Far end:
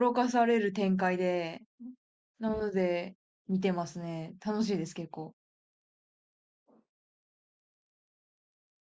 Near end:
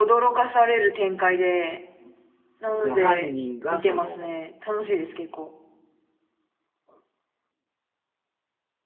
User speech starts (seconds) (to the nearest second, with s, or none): 3 s